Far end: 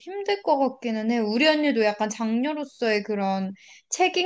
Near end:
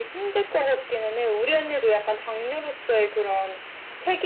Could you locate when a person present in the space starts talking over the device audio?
none

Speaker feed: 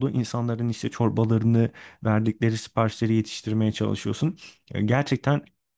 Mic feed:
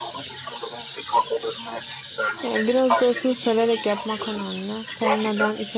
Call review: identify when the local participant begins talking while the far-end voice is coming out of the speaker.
2.4 s

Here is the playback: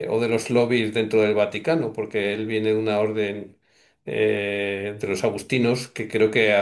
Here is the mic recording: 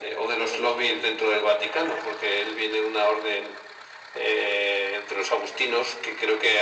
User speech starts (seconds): none

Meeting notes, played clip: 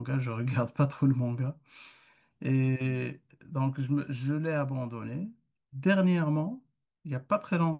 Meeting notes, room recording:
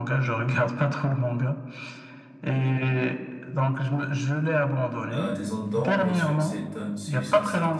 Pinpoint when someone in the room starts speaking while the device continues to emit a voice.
5.1 s

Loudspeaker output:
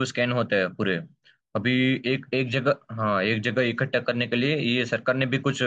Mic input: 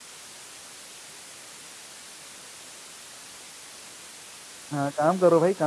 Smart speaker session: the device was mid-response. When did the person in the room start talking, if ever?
4.7 s

